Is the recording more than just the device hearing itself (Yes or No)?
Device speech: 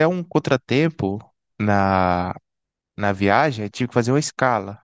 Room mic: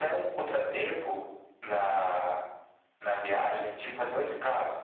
No